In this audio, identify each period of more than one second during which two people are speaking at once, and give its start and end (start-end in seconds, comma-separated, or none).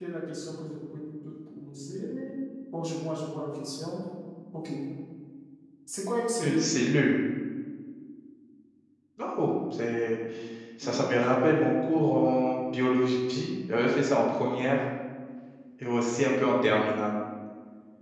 none